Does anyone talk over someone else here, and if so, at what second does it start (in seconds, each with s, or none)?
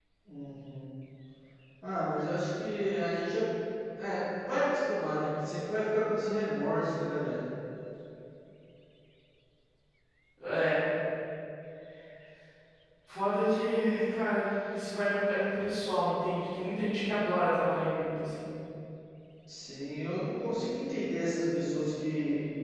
none